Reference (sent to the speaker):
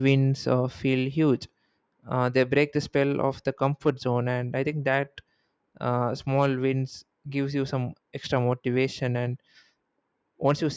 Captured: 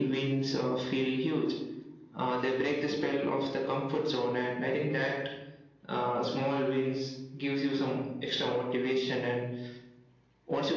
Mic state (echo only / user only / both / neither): echo only